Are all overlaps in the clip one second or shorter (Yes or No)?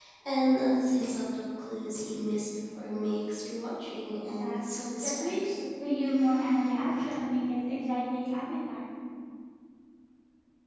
No